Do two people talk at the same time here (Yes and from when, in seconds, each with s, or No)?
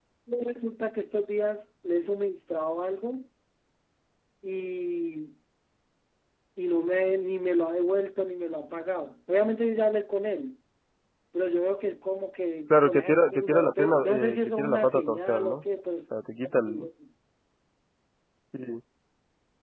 Yes, from 12.7 s